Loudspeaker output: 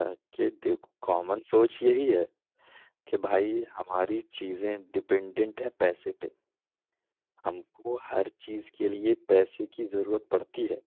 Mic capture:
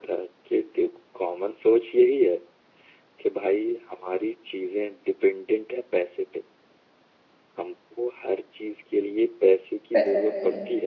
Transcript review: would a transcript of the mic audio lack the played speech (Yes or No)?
No